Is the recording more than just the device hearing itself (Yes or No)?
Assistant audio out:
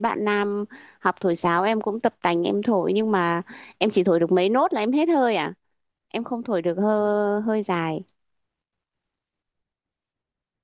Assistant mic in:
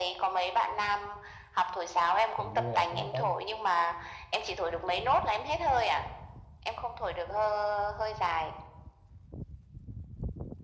Yes